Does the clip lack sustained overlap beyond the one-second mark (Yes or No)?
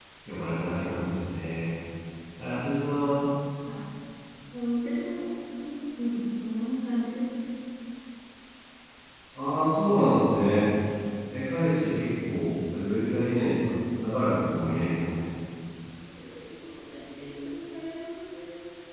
Yes